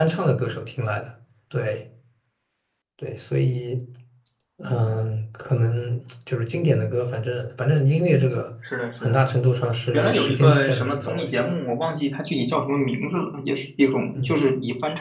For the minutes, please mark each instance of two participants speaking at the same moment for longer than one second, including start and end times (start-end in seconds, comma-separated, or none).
9.9-11.5